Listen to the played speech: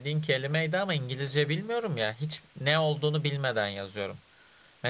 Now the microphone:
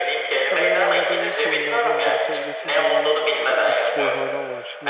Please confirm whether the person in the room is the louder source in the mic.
No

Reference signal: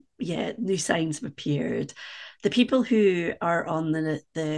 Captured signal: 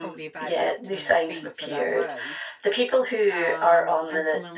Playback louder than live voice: Yes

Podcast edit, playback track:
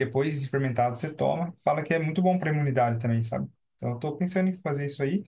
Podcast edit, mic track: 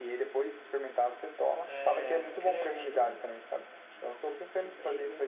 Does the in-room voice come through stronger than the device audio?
No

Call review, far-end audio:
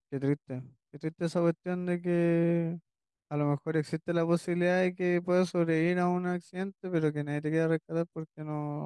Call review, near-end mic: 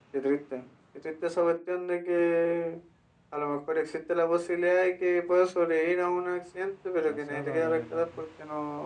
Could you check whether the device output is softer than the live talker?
No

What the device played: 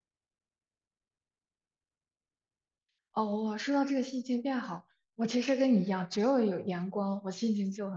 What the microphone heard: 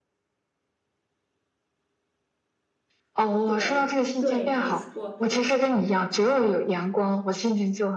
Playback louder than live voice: Yes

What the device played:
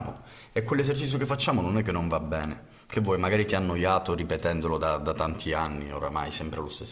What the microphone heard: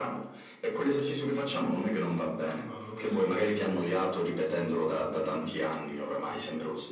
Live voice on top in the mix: No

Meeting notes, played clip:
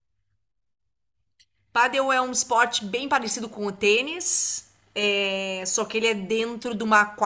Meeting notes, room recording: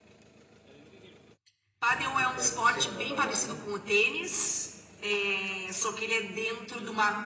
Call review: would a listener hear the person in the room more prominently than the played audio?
No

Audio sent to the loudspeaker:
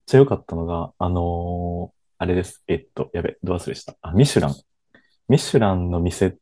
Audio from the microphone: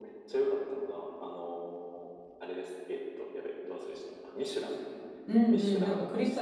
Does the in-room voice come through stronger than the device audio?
Yes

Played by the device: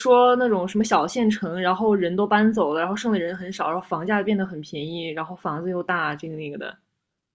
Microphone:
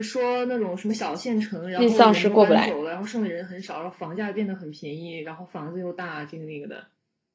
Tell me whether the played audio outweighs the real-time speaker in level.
No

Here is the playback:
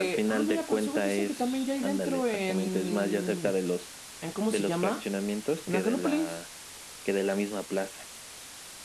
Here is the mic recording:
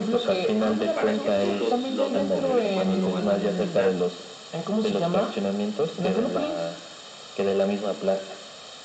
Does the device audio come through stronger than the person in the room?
Yes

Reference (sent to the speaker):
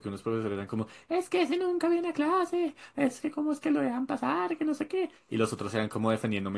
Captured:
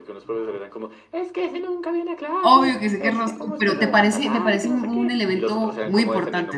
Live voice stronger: Yes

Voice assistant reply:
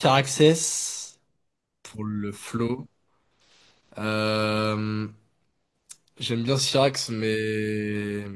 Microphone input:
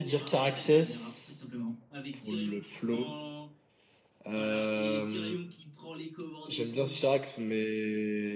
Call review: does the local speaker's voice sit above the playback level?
No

